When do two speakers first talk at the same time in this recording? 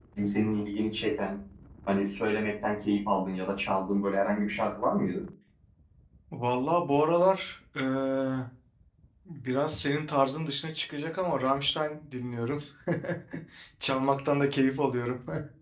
none

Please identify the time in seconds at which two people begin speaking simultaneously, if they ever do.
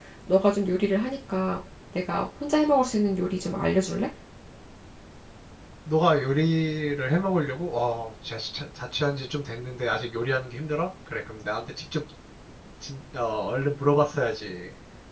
none

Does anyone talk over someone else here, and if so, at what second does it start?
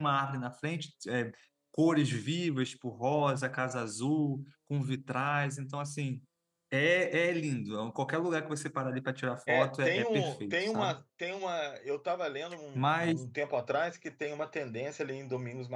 9.5 s

